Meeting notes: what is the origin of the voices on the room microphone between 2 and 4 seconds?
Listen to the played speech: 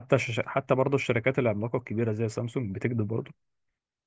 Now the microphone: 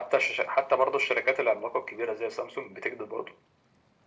echo only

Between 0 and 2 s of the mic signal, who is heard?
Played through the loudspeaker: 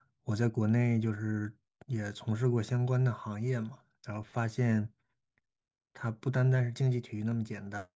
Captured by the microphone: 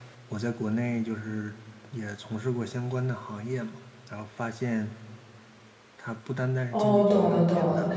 echo only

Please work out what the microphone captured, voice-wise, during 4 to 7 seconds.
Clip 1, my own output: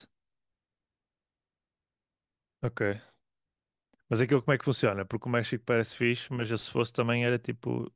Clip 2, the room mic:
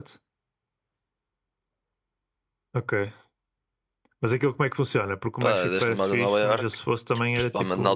both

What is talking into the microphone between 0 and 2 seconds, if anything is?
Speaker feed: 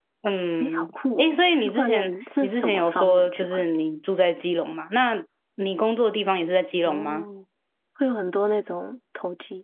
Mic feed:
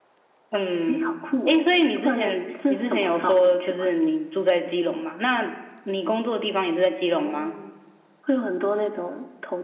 echo only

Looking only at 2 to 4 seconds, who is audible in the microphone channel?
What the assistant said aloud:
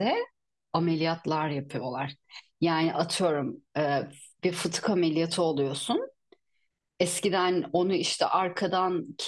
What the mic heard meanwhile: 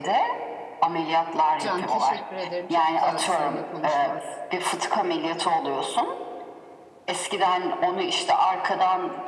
both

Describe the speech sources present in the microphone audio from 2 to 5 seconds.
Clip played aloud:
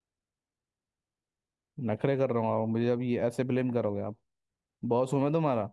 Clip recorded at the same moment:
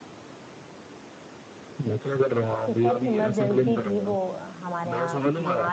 both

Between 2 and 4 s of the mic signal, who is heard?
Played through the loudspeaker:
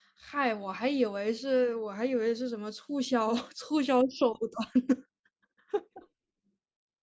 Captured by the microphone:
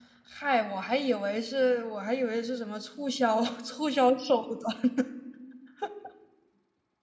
echo only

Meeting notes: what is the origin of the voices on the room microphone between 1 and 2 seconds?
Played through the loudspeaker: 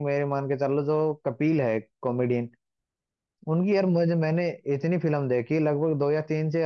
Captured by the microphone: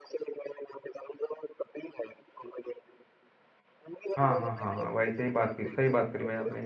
echo only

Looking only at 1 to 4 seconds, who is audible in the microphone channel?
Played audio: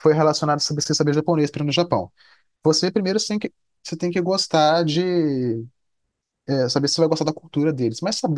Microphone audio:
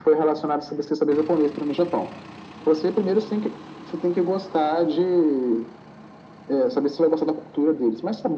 echo only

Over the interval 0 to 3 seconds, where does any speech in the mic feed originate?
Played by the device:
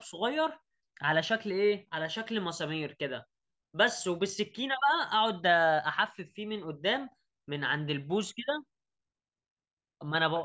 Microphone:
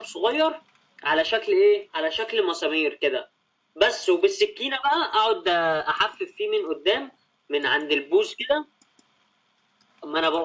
echo only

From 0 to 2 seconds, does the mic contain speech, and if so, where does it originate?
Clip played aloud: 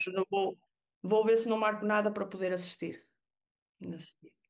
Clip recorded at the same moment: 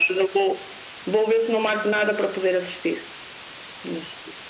echo only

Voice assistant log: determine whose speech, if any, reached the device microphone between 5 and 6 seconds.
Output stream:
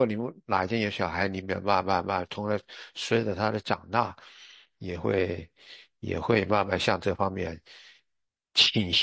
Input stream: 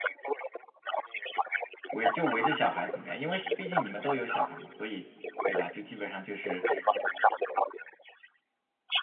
both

